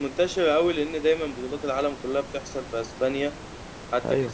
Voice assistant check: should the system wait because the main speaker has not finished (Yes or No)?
Yes